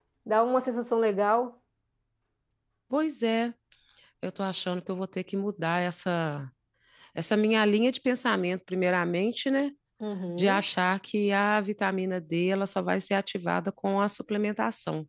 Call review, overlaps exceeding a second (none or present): none